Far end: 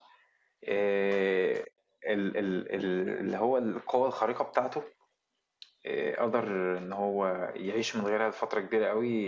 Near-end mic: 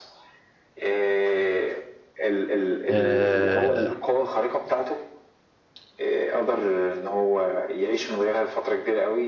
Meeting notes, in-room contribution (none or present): present